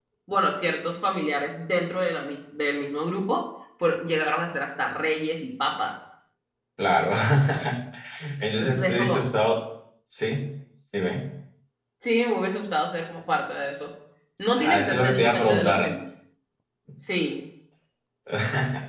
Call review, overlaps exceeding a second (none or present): present